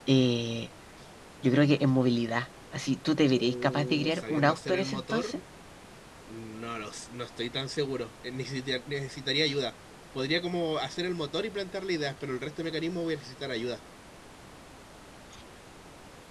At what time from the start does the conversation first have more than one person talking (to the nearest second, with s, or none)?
3 s